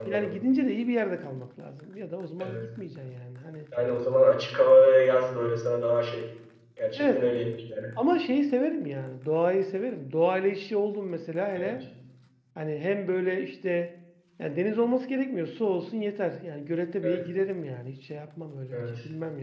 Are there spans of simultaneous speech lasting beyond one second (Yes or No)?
No